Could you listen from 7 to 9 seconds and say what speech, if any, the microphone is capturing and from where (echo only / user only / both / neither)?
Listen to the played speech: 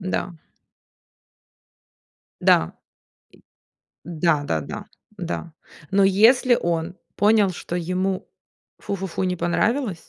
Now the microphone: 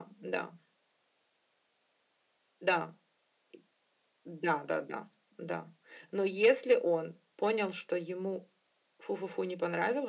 echo only